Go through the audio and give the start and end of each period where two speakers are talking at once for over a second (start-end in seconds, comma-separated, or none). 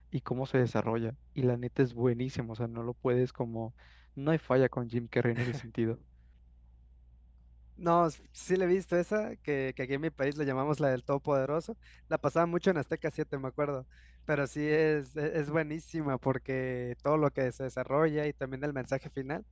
none